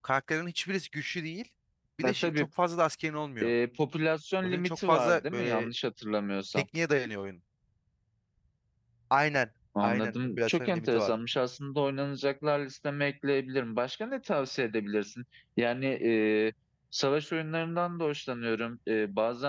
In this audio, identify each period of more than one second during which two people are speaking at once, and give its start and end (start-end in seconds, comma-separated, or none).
4.4-5.7, 9.8-11.1